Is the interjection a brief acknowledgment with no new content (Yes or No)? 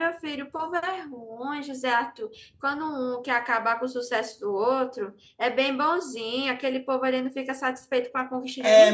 No